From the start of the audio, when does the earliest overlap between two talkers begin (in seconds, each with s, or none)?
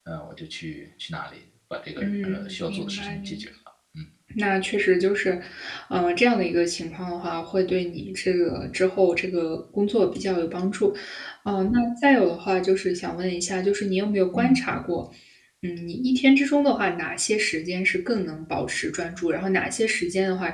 2.0 s